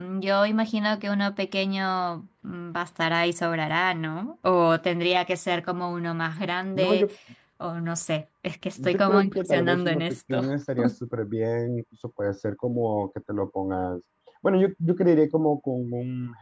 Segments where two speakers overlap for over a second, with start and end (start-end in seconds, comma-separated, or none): 8.8-10.4